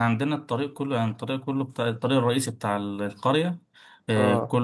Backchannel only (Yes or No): Yes